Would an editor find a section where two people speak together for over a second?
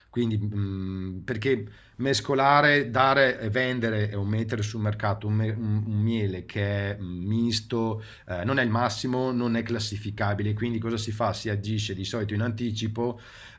No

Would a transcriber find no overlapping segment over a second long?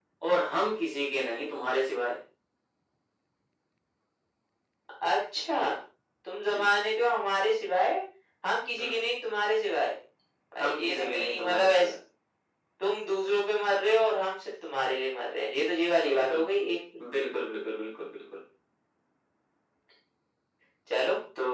No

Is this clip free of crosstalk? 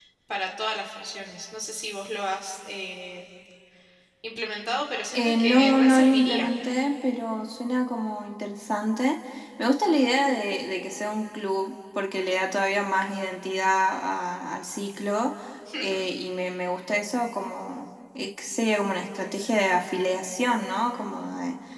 No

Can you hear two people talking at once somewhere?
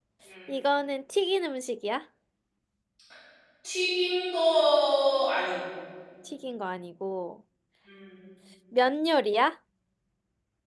No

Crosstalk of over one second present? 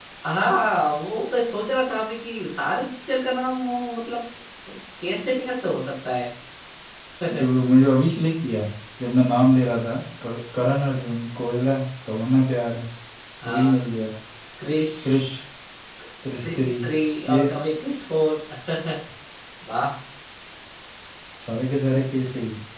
No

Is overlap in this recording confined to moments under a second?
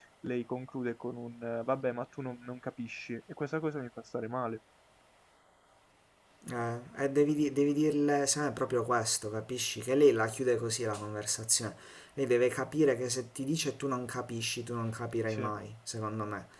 Yes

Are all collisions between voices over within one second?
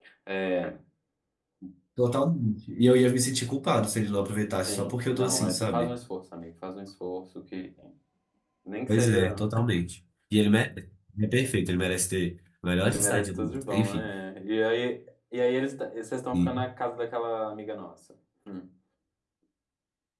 No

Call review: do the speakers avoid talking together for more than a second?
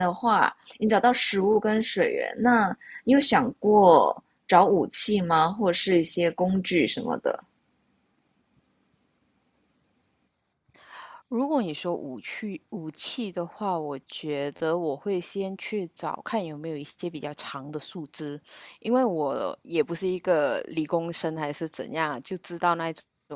Yes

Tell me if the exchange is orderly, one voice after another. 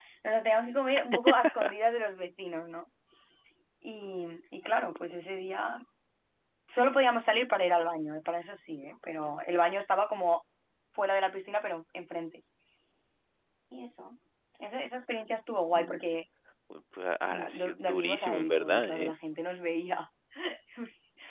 No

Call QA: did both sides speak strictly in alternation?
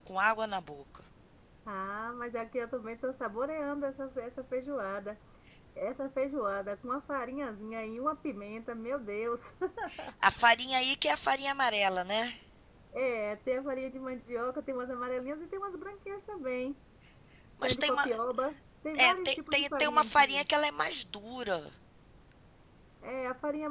No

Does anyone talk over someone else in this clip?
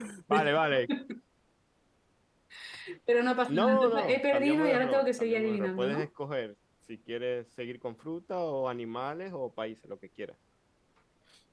Yes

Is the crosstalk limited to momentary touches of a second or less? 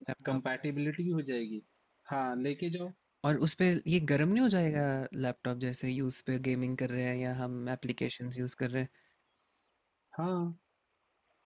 Yes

